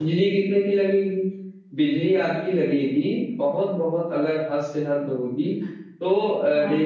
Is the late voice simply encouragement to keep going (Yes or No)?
Yes